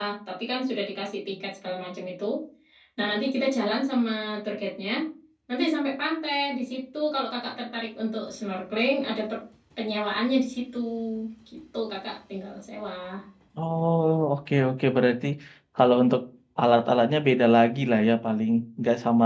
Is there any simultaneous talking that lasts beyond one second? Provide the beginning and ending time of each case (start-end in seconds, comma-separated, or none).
none